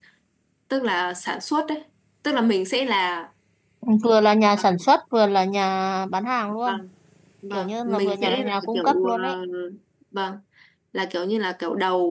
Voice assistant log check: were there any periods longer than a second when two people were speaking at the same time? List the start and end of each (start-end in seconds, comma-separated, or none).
7.5-9.1